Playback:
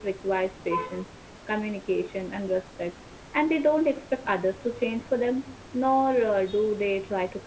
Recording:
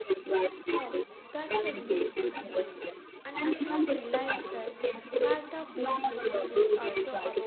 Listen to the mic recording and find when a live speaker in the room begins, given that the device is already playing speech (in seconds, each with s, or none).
0.7 s